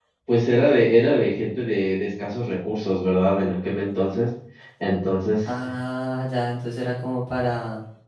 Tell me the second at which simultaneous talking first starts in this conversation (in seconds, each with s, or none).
none